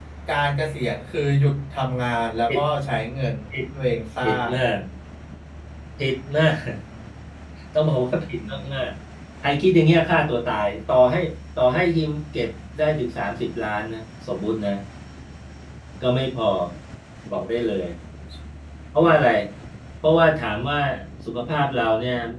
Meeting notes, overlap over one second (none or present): none